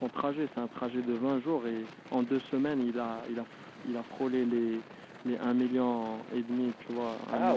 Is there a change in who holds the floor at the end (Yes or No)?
Yes